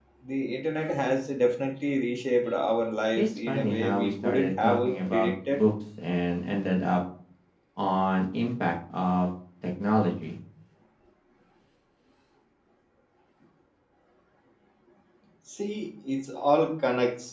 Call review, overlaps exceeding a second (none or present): present